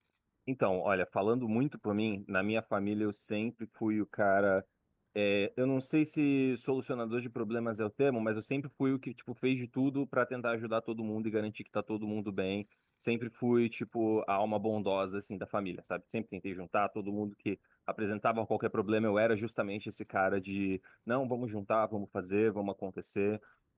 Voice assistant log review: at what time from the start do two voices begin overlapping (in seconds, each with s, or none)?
none